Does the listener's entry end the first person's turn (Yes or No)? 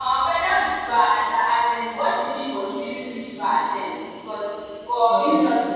No